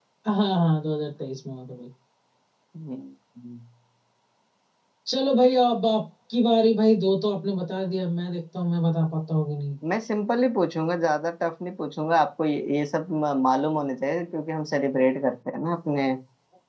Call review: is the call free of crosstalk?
Yes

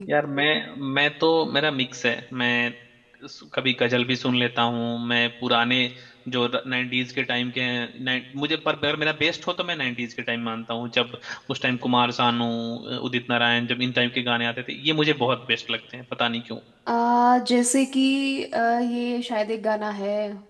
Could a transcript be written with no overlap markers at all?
Yes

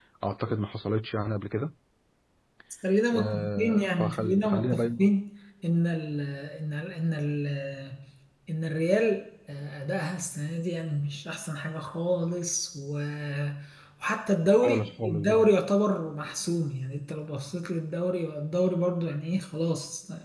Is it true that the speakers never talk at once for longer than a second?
No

